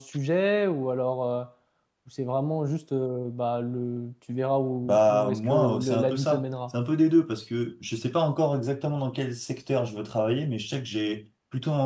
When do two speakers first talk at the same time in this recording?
5 s

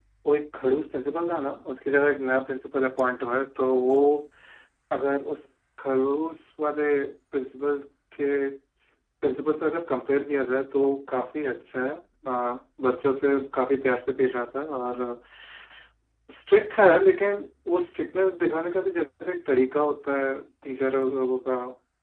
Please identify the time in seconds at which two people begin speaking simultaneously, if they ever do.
none

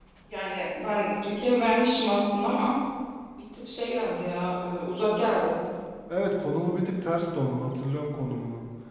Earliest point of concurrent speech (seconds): none

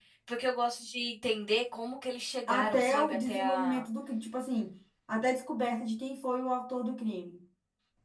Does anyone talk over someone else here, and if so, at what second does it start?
2 s

